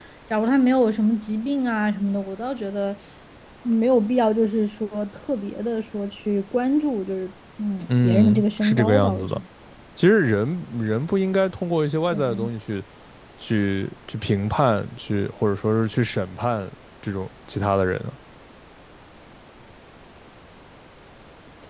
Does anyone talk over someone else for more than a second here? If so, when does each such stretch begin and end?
7.9-9.4

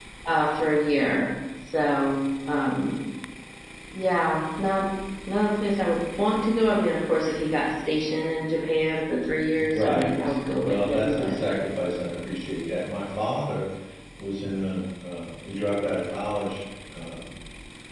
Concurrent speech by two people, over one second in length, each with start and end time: 9.6-11.4

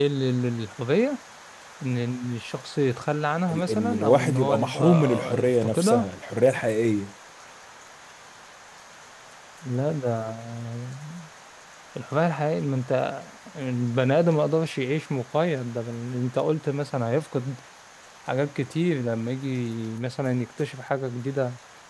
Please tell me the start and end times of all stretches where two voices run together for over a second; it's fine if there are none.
3.5-6.1

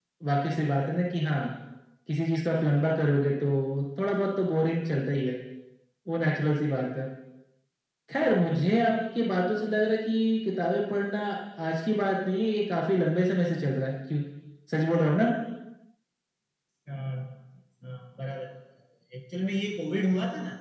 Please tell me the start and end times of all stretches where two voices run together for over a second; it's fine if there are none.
none

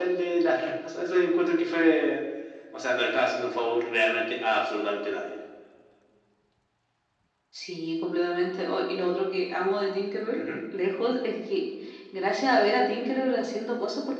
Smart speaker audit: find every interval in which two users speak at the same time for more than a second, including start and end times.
none

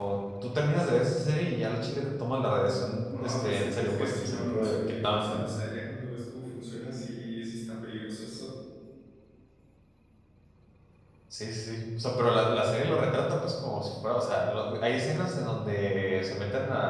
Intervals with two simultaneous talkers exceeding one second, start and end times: 3.1-5.5

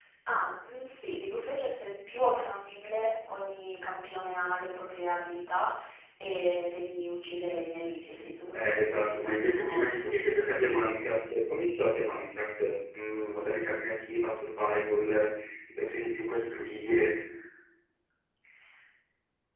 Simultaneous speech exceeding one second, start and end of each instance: 8.6-10.7

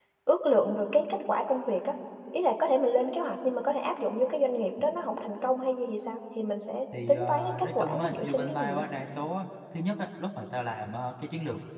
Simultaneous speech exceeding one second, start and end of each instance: 7.1-8.8

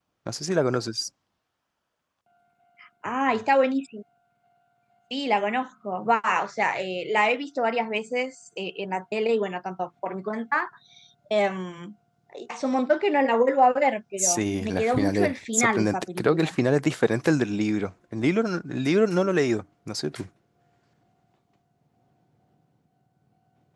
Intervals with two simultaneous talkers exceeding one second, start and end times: 14.2-16.6

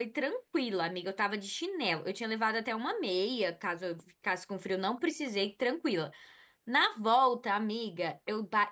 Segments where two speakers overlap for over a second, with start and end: none

